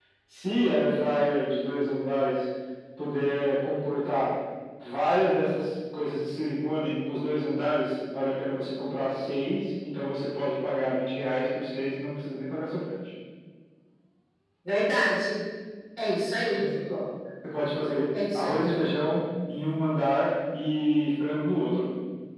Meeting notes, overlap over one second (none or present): none